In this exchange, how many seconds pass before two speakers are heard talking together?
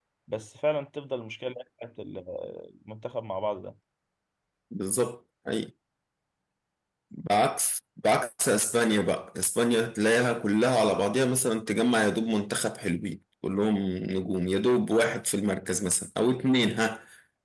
none

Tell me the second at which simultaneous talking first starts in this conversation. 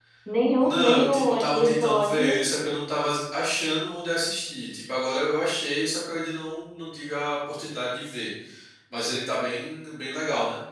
0.6 s

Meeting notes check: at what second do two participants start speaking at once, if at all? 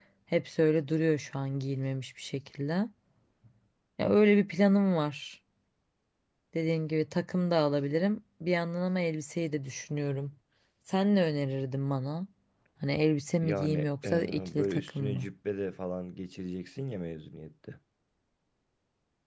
13.4 s

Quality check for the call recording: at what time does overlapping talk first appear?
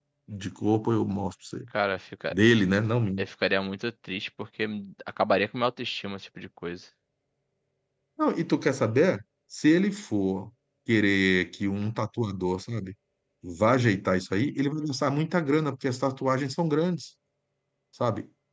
none

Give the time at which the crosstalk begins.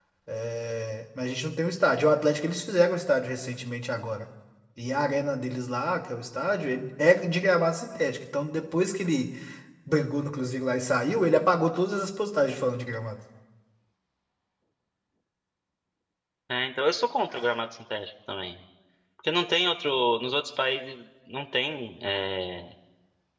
none

